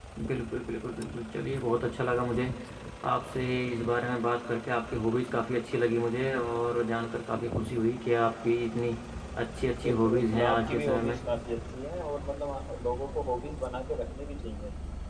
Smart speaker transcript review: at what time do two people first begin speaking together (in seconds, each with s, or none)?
9.8 s